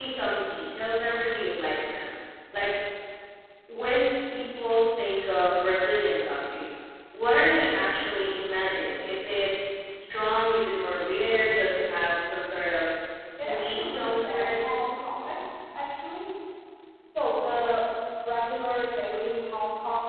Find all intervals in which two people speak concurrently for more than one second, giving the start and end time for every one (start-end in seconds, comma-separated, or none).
13.4-14.6